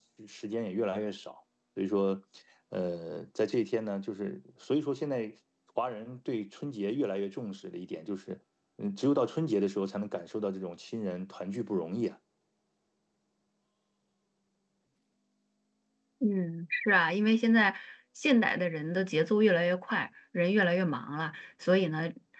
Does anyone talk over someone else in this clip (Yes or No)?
No